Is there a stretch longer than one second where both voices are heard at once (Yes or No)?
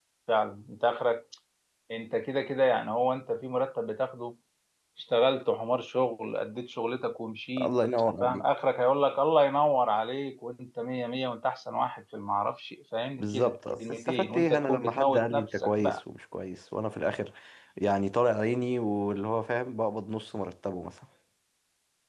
Yes